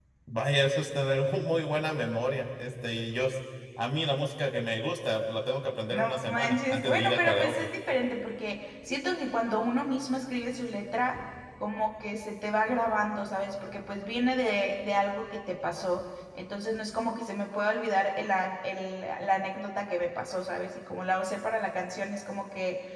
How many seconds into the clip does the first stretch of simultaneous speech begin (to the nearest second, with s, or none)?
6 s